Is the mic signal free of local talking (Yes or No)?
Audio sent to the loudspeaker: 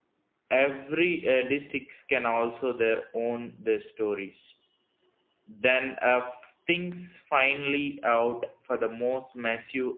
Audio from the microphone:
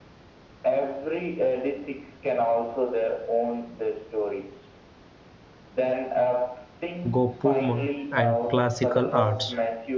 No